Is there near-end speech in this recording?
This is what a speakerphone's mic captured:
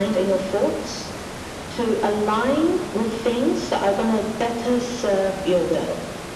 No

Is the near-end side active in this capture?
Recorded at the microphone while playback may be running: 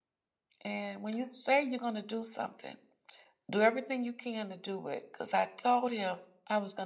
Yes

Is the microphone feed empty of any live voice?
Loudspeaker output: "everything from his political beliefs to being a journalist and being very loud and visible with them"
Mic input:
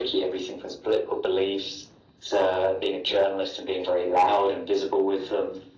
Yes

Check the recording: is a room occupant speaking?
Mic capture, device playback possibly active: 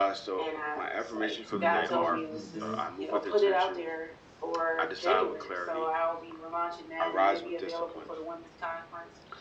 Yes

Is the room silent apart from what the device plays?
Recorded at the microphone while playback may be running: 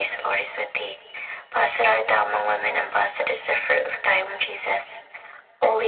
Yes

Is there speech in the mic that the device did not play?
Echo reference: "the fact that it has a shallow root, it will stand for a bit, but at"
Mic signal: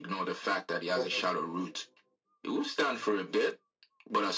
Yes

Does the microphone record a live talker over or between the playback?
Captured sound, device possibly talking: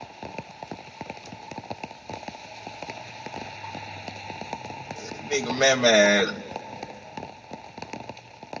Yes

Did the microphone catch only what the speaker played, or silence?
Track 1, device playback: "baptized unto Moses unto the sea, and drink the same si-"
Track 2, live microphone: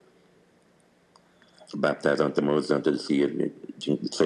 Yes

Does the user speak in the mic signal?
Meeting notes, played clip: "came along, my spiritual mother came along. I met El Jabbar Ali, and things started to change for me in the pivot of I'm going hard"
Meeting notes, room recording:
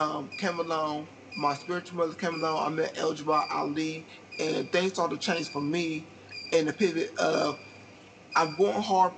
No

